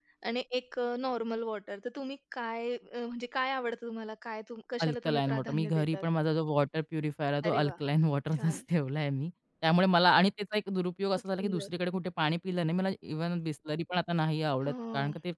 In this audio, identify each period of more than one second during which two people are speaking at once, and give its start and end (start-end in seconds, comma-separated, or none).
4.8-6.0